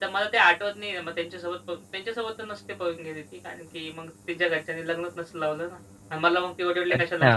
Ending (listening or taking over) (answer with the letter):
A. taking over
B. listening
A